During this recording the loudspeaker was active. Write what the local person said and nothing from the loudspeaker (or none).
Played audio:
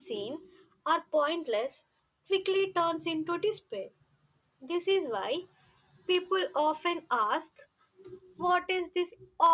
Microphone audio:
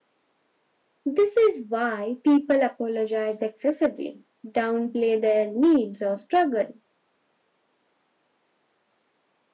This is why people apologize excessively, downplay their needs or struggle